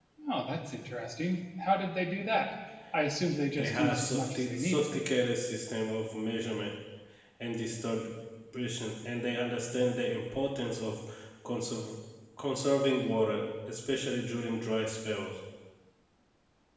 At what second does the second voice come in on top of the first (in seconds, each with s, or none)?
3.5 s